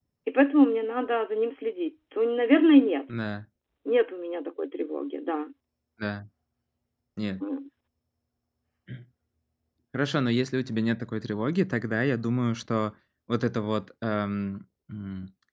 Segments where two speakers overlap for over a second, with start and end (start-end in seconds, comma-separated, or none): none